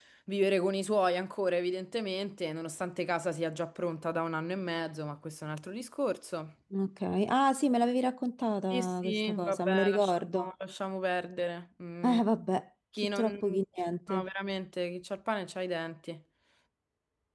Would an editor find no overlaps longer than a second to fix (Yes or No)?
No